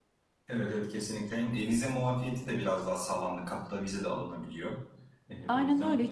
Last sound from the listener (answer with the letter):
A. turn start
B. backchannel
A